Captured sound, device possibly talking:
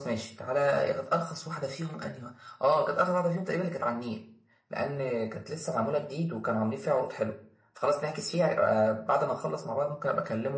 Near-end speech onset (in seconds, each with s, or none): none